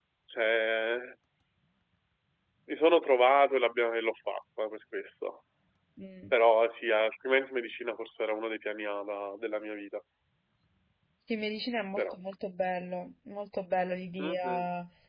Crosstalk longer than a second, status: none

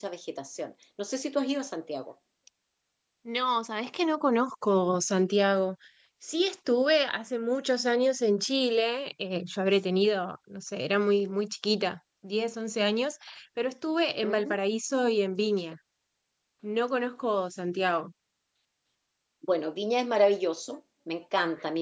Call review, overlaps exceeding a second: none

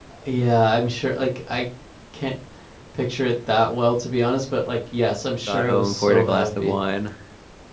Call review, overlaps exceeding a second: present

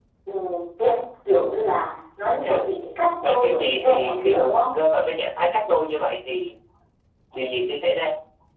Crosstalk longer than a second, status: present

